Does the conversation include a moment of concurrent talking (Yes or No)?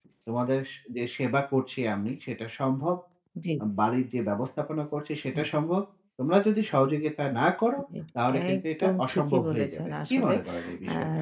Yes